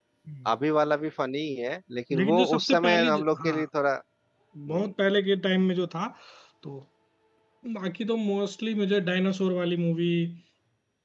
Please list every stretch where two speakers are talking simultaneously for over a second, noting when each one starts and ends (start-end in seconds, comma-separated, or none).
2.2-3.6